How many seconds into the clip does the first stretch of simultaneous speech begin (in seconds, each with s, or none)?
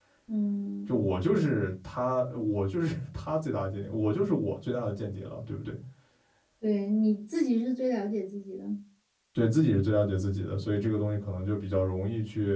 none